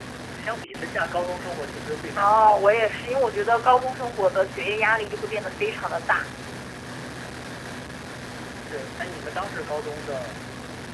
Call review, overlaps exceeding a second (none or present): none